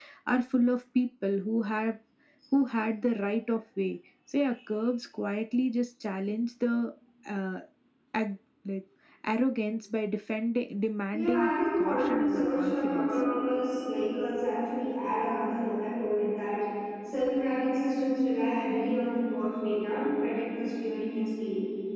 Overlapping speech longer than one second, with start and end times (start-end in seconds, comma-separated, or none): 11.1-13.1